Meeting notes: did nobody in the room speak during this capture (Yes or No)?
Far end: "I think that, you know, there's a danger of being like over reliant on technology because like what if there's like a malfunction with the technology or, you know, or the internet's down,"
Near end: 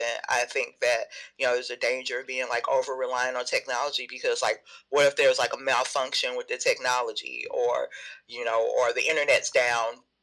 Yes